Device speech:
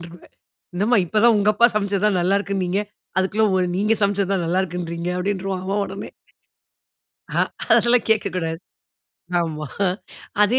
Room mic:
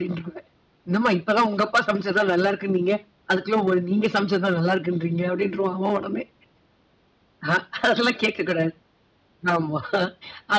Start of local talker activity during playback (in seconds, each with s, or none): none